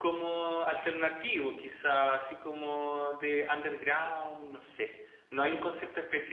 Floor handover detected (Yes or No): No